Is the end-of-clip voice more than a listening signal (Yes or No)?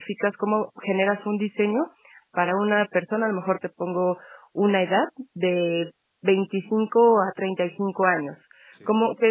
No